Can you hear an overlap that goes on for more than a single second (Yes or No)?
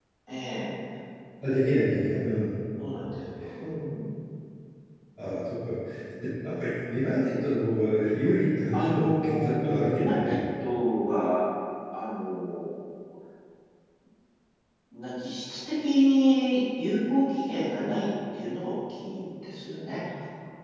Yes